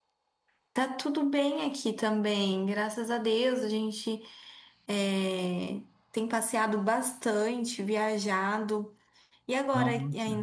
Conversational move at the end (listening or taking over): listening